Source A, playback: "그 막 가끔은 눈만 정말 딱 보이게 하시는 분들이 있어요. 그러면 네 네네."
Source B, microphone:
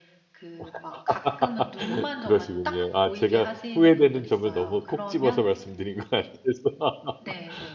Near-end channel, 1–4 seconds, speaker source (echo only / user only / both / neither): both